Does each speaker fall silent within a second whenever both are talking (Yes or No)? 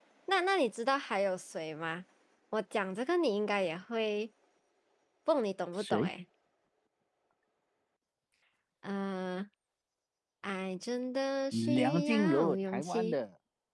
No